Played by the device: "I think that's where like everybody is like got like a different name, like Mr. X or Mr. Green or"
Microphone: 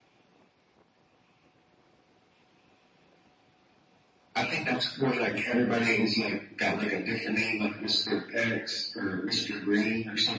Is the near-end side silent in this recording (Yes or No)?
Yes